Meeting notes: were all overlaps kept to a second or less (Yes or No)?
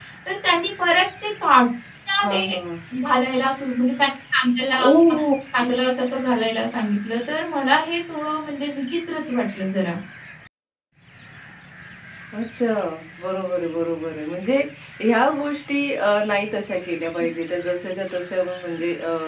Yes